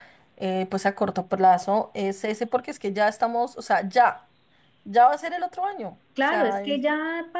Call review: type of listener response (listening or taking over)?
taking over